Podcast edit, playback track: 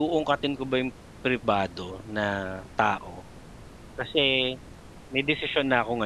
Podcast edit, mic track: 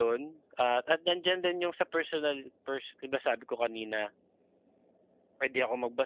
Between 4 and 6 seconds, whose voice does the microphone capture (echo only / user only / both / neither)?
user only